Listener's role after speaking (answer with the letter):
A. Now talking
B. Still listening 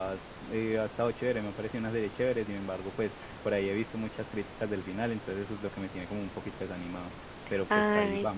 A